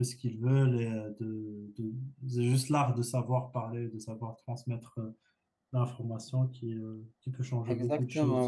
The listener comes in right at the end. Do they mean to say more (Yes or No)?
Yes